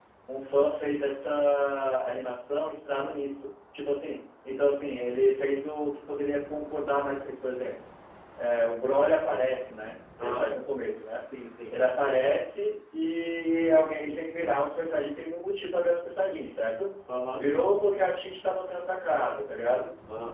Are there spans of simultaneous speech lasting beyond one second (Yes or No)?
No